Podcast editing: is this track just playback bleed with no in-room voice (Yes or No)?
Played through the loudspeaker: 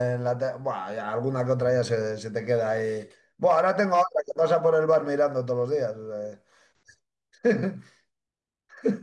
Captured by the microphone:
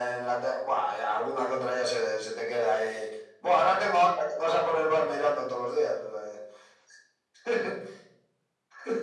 Yes